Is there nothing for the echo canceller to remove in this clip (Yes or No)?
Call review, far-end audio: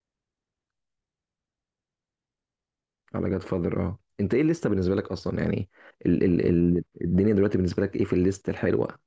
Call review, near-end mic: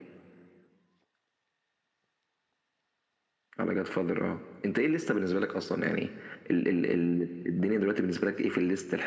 No